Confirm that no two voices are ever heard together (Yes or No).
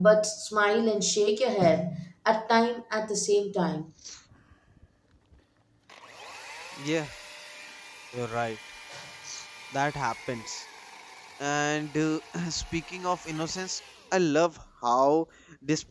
Yes